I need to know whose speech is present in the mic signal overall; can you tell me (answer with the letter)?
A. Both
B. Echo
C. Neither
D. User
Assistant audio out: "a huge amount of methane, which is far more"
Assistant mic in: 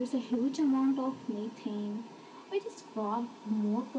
B